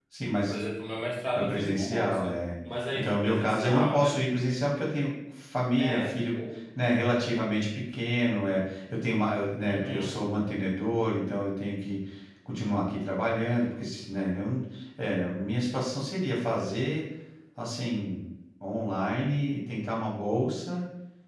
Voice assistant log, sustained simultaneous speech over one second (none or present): present